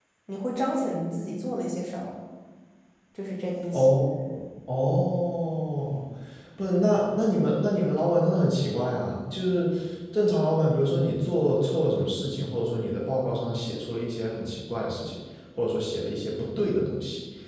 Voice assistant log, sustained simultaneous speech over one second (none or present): none